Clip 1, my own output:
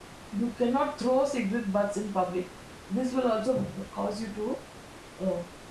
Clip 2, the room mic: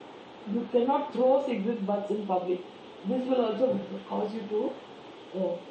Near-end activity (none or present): none